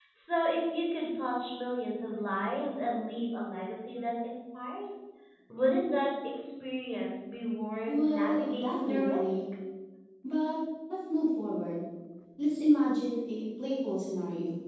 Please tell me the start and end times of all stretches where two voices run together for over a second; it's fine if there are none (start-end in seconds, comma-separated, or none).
7.9-9.2